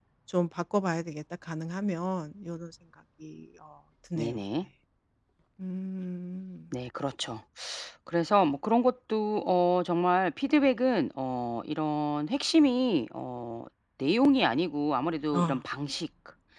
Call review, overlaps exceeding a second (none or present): none